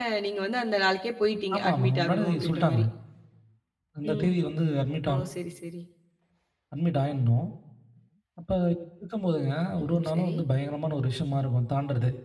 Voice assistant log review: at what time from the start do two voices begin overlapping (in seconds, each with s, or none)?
1.5 s